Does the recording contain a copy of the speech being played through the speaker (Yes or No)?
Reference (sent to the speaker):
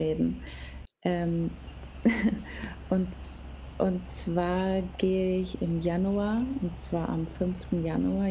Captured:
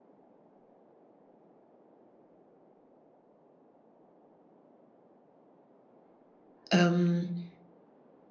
No